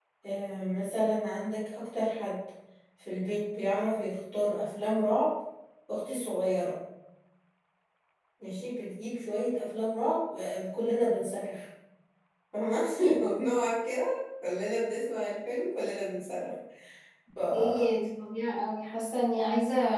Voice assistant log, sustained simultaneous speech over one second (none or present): none